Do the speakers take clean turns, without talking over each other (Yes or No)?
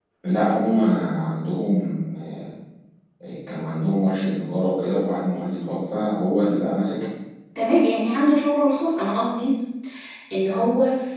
Yes